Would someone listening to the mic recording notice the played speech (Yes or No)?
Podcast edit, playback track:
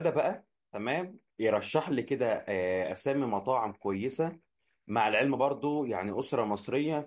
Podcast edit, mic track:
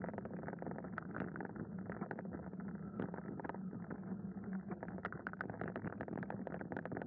No